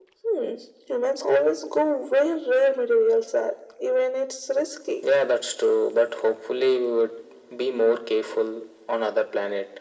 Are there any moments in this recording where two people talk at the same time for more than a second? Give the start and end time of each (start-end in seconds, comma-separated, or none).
none